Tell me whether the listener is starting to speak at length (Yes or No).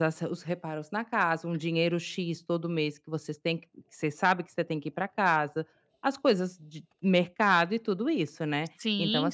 No